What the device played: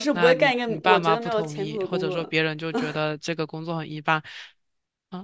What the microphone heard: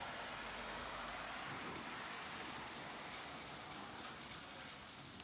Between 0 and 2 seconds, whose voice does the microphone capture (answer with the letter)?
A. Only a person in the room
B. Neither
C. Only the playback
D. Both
B